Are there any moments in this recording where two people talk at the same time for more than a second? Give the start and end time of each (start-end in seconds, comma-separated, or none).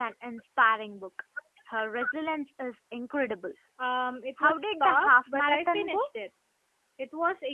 4.4-6.0